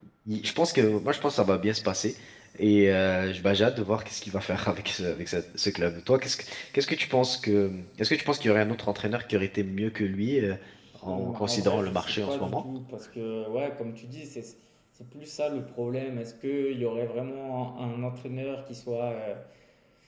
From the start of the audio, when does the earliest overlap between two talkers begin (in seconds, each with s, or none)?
11.1 s